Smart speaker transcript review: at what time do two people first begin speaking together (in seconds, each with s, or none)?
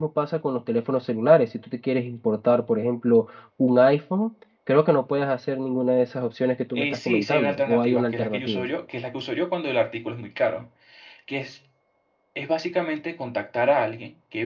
6.7 s